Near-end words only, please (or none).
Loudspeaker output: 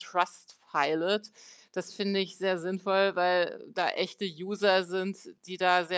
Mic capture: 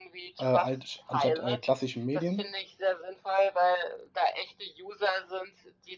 äh, alsch anstatt, äh, klassischen Medien?